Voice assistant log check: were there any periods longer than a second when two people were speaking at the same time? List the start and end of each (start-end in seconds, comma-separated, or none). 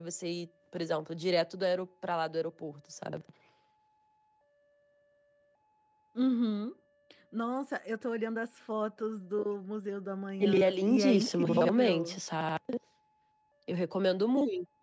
10.4-12.2